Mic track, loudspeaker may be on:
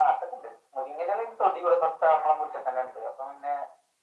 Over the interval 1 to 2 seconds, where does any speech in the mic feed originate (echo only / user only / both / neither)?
echo only